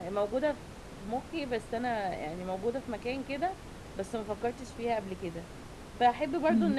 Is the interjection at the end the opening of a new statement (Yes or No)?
No